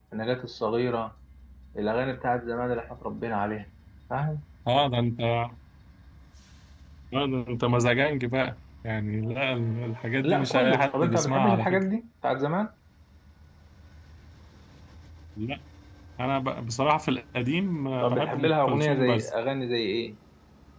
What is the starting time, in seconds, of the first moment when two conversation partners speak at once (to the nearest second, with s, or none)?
10 s